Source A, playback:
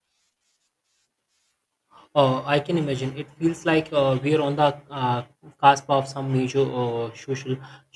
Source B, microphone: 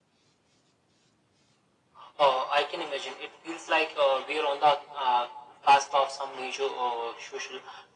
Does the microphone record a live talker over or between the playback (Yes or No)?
No